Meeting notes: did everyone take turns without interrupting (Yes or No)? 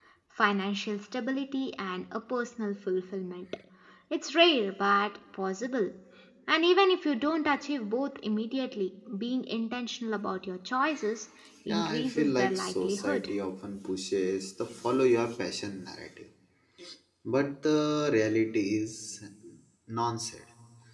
No